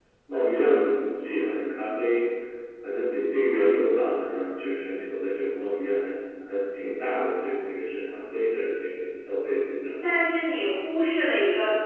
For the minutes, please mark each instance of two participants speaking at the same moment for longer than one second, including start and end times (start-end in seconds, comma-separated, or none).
none